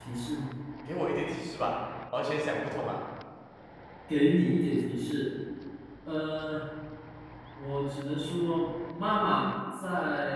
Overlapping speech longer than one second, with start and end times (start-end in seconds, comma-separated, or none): none